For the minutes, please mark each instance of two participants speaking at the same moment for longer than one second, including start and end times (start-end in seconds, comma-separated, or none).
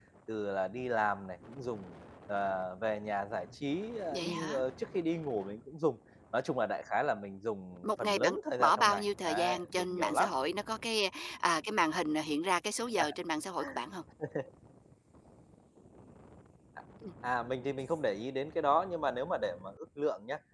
7.8-10.3